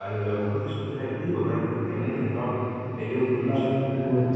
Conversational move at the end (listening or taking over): taking over